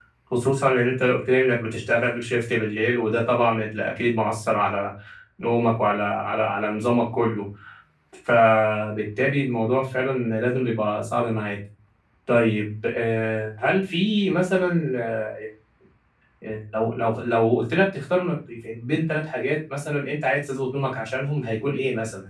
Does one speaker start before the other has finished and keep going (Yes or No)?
No